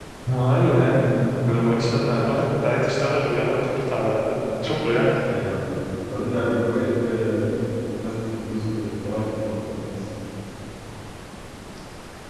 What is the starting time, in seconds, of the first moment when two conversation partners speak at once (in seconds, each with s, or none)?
none